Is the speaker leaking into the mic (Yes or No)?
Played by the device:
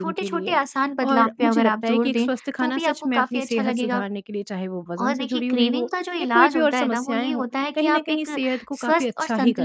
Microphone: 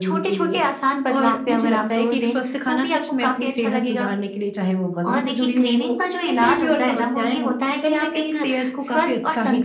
Yes